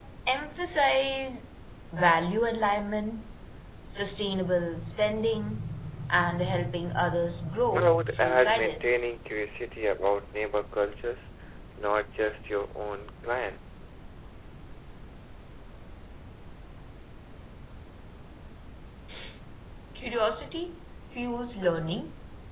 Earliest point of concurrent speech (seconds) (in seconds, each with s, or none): 7.7 s